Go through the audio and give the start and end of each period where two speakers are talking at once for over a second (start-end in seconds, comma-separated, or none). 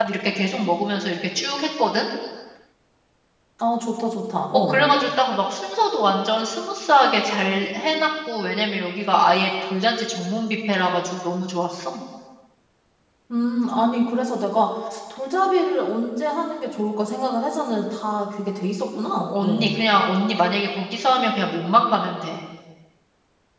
none